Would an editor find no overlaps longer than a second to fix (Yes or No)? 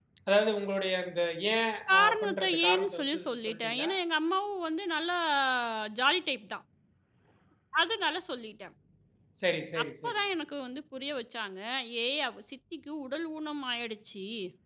No